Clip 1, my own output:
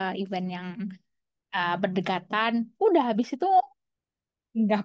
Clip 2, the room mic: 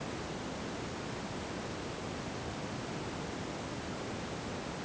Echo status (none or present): none